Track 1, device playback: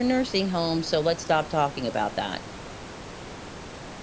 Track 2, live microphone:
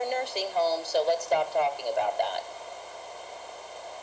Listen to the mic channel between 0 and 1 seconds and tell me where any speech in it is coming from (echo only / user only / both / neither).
echo only